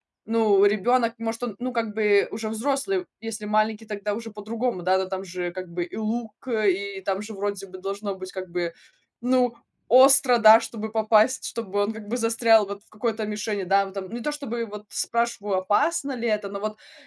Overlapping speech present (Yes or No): No